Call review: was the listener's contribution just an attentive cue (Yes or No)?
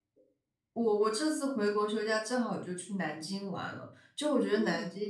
Yes